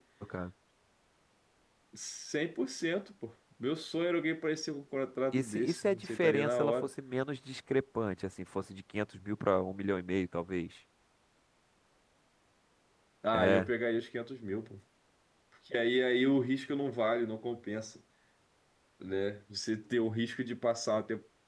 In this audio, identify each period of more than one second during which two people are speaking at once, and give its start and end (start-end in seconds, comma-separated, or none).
5.3-6.9